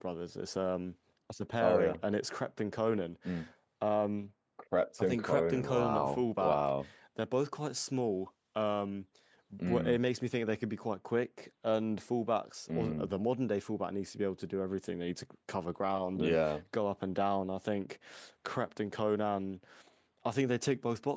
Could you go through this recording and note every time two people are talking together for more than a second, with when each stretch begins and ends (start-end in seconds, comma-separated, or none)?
5.0-6.6